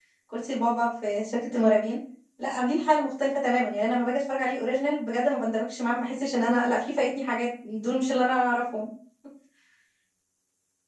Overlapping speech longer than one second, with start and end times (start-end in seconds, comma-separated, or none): none